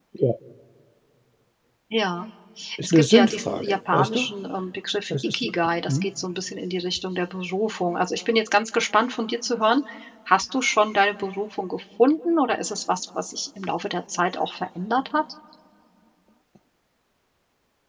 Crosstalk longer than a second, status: present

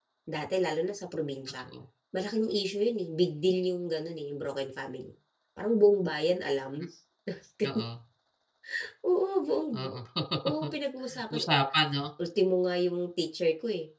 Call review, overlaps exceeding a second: none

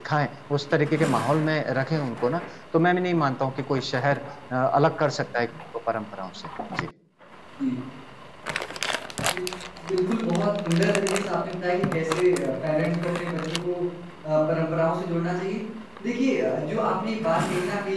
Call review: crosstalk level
none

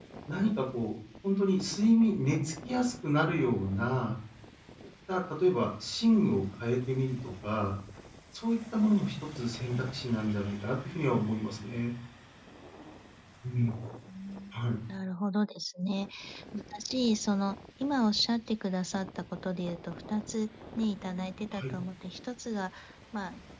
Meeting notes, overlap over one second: none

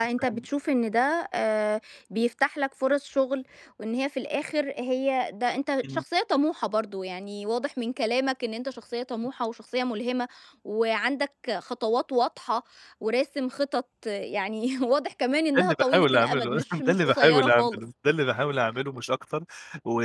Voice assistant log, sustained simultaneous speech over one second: present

